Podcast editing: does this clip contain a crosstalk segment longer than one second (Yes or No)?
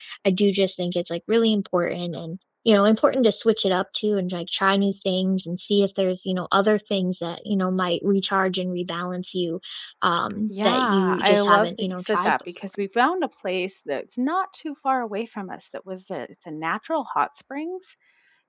Yes